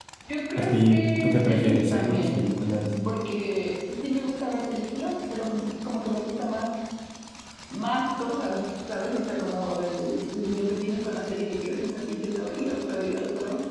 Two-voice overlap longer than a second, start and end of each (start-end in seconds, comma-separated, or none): 0.6-2.5